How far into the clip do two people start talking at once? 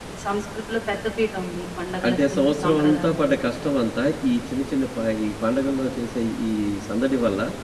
2.0 s

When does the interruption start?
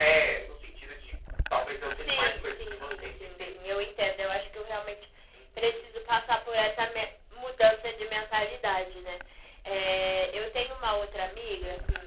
2.0 s

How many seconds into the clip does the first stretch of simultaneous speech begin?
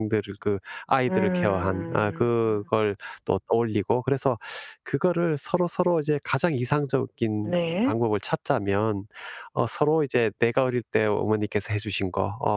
1.1 s

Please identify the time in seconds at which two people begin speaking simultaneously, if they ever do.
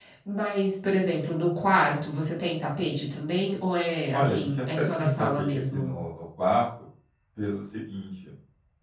4.1 s

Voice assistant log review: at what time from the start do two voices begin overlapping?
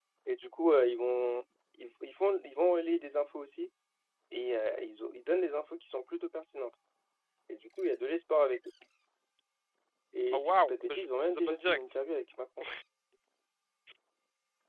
10.3 s

